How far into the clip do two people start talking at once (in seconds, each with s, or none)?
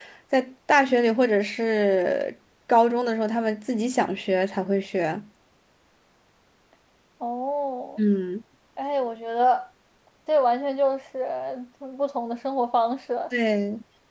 none